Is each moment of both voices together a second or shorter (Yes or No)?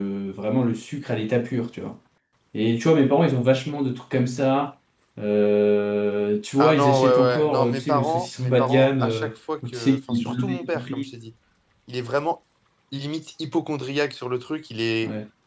No